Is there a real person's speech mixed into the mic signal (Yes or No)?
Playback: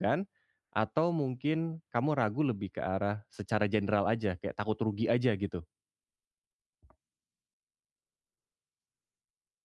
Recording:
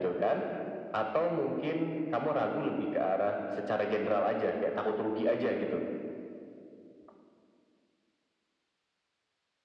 No